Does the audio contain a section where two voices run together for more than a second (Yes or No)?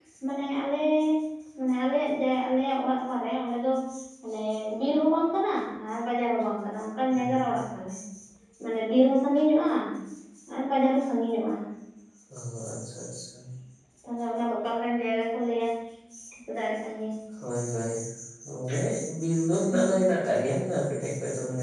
No